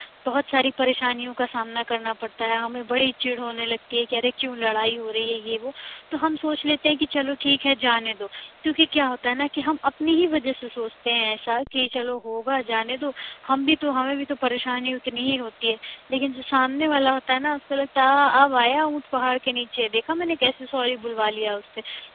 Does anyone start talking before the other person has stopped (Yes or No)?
No